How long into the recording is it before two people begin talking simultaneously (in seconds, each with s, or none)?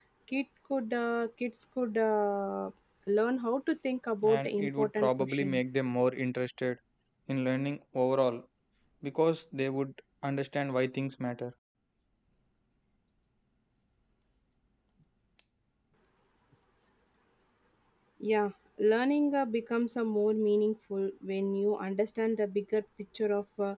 4.2 s